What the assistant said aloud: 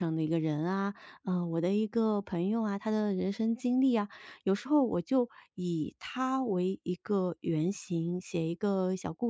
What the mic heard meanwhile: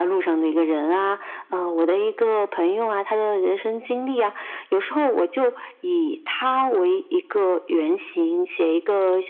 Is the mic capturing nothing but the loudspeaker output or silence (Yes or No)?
Yes